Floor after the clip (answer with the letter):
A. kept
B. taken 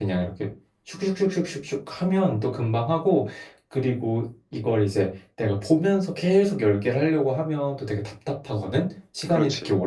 A